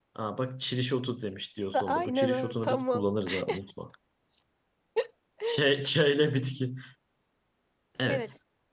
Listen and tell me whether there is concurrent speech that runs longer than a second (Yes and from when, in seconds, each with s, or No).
Yes, from 1.7 s